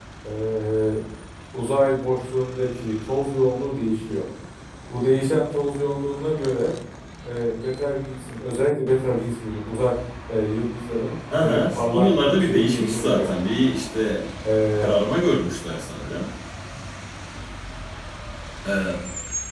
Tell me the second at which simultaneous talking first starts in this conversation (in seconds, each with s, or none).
11.3 s